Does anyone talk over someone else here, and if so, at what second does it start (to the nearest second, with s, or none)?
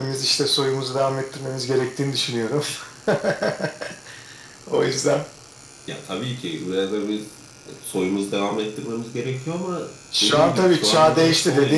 10 s